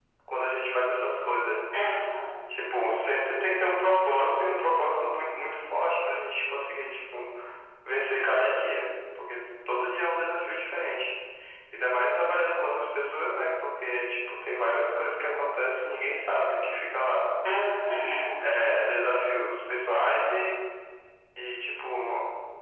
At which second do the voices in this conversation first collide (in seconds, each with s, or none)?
none